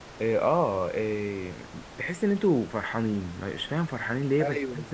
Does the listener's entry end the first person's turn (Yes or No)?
Yes